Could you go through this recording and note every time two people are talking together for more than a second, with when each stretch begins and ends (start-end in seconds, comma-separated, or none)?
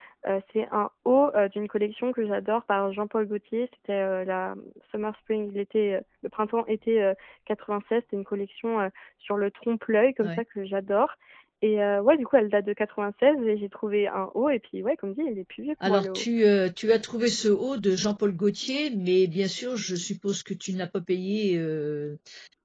none